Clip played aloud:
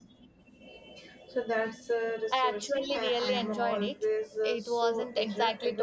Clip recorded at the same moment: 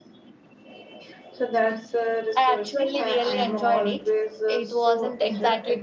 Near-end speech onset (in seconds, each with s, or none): none